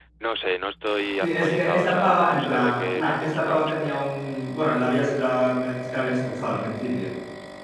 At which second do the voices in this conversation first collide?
1 s

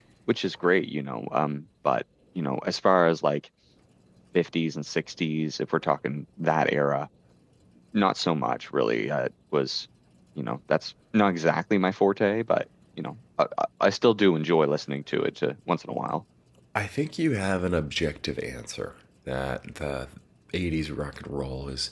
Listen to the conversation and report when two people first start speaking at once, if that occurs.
none

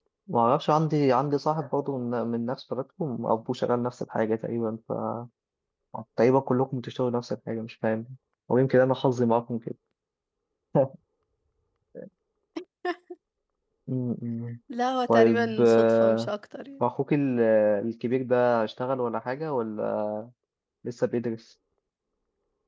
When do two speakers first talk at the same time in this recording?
15 s

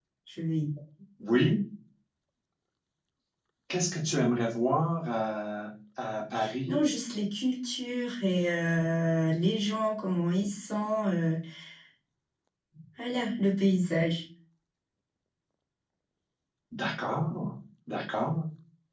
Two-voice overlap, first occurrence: none

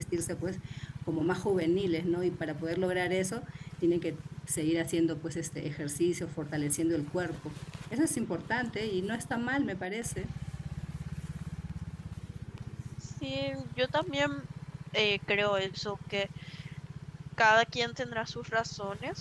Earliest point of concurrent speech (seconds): none

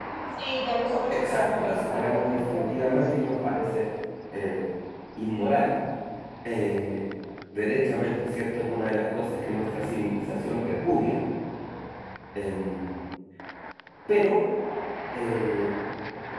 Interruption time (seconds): 1 s

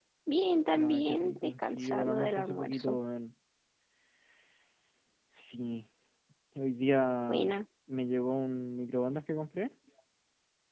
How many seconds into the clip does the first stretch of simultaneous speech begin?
1 s

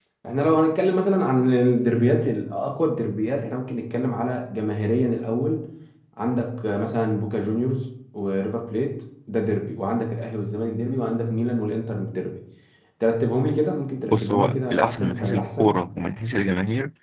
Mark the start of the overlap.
14 s

